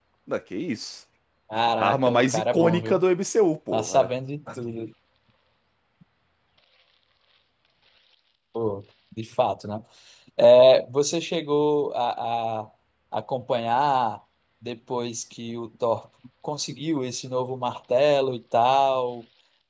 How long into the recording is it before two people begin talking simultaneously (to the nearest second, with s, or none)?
2 s